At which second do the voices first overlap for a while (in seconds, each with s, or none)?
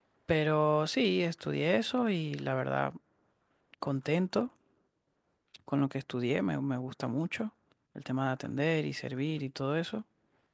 none